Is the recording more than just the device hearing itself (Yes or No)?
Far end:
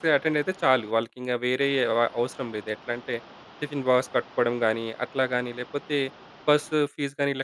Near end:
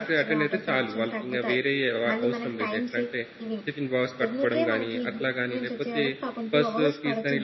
Yes